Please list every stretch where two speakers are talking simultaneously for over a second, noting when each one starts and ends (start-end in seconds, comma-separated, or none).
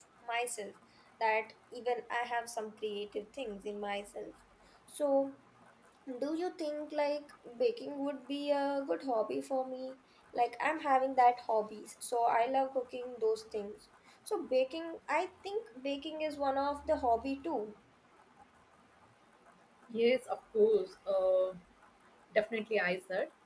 none